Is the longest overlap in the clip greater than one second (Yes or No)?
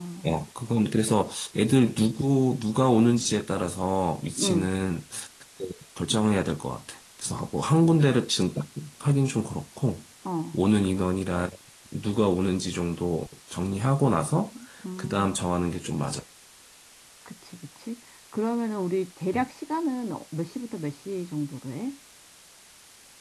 No